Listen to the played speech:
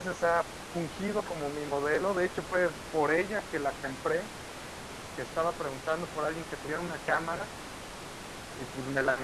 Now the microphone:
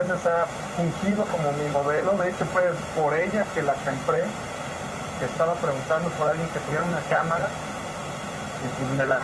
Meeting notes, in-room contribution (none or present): none